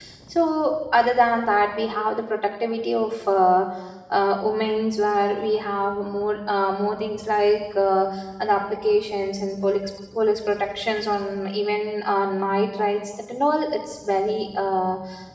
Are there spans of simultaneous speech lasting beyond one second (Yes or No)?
No